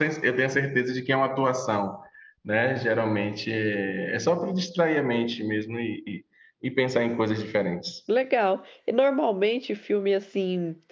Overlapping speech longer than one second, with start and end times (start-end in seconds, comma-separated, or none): none